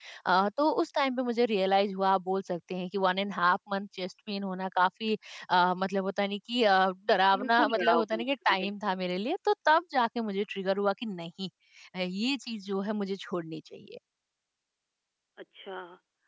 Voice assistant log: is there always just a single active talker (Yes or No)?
No